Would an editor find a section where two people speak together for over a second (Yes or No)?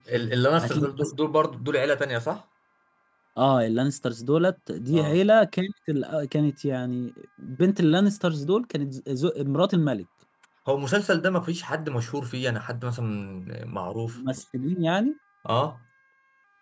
No